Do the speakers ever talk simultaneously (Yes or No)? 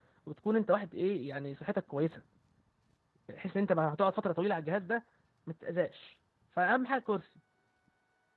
No